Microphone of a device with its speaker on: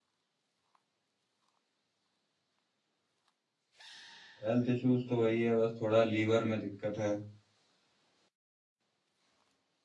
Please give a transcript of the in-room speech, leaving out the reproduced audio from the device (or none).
हेल्थ इश्यूज तो वही है बस थोड़ा लीवर में दिक्कत है